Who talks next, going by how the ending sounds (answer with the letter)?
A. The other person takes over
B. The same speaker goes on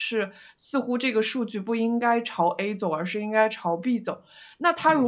B